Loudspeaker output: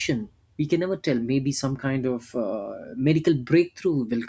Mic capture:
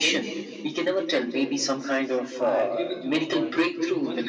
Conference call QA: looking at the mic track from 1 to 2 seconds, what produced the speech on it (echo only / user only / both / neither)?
echo only